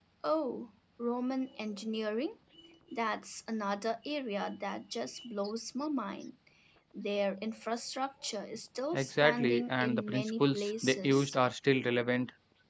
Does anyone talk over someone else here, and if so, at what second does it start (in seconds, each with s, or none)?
8.9 s